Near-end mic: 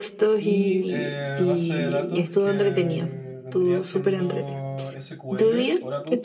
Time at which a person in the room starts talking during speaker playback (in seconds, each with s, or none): 0.4 s